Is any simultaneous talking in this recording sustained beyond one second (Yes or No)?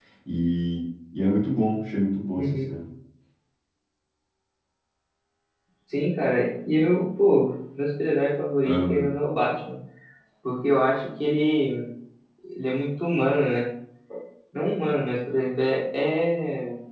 No